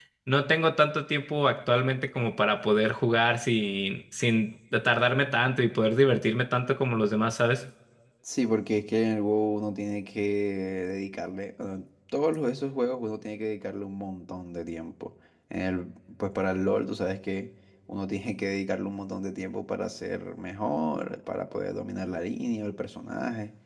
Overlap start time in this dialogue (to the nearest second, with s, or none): none